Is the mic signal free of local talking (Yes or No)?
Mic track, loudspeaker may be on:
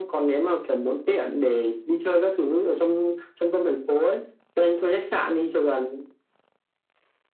Yes